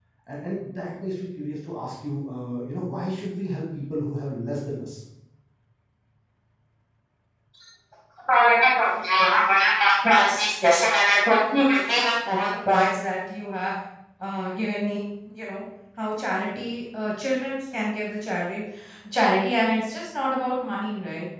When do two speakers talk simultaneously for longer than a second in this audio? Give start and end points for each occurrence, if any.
none

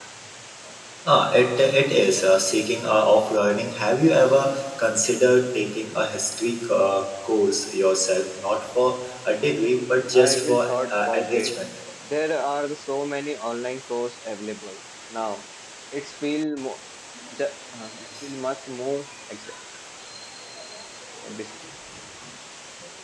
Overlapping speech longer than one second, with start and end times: 10.1-11.5

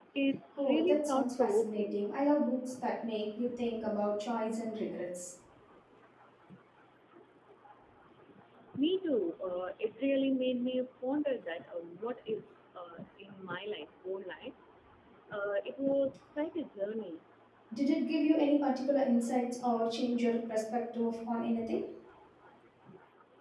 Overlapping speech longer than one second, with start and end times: 0.6-2.0

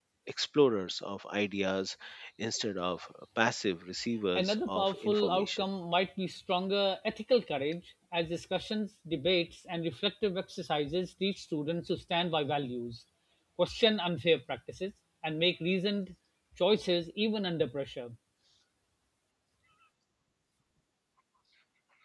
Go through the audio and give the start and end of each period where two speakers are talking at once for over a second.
4.4-5.6

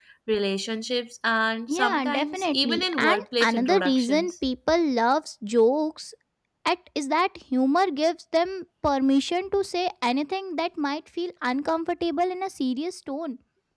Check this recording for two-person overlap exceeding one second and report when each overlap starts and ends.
1.7-4.3

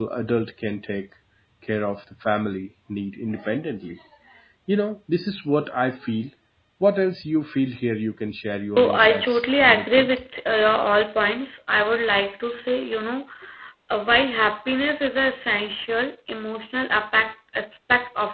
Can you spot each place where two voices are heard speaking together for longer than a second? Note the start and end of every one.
8.8-10.1

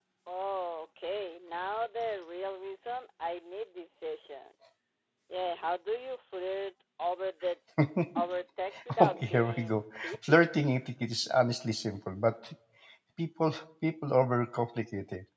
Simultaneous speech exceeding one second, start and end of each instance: 9.0-10.5

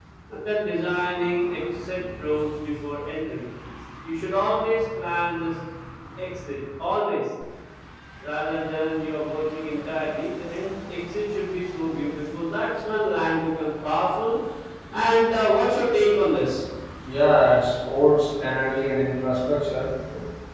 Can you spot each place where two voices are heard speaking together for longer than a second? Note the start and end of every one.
none

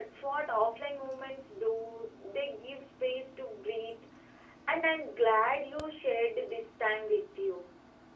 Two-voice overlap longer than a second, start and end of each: none

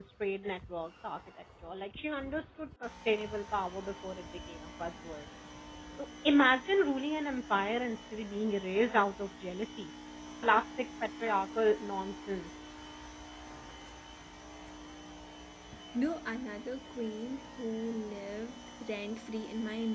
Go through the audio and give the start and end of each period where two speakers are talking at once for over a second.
none

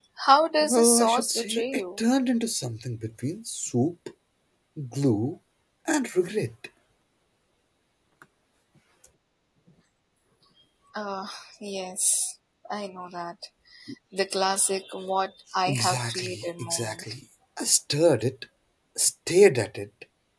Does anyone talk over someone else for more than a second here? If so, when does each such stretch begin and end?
0.6-1.8, 15.7-17.0

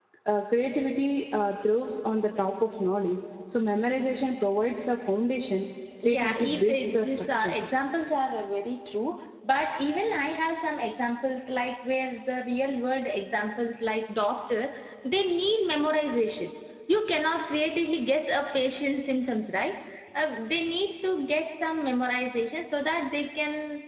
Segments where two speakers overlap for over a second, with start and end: 6.0-7.6

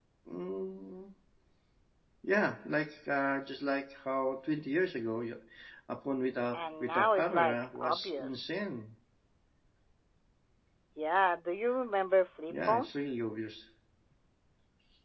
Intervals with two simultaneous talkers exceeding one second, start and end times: 6.5-8.5

